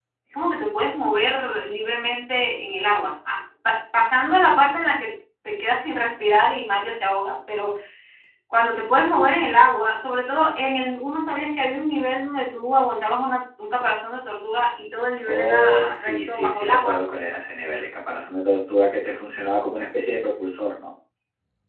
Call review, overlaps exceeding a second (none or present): present